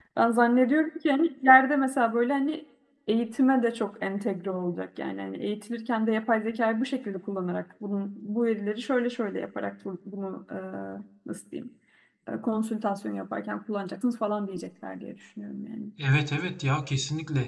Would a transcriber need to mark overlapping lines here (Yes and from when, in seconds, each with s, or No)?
No